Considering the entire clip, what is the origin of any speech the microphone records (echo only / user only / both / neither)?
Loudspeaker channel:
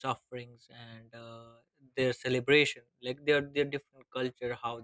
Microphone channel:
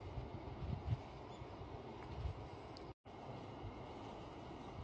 neither